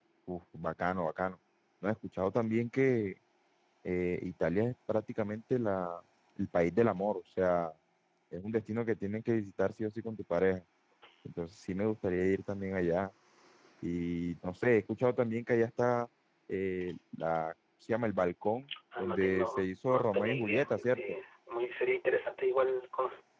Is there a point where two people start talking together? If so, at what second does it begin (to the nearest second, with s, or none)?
19 s